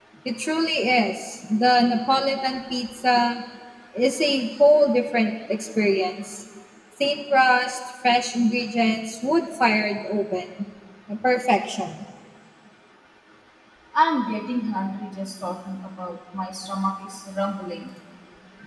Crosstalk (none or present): none